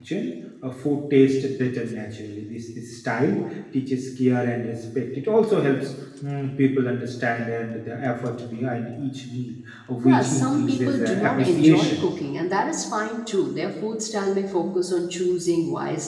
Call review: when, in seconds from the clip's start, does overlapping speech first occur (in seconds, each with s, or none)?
10.0 s